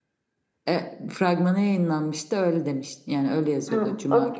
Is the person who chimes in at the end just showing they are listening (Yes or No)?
No